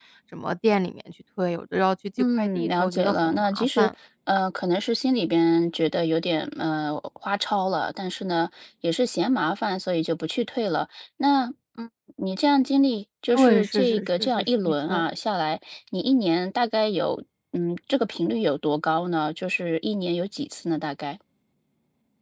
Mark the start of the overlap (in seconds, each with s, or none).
2.4 s